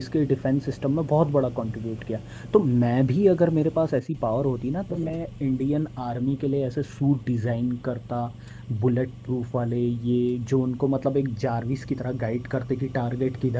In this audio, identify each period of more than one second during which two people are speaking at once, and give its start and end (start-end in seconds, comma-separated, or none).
none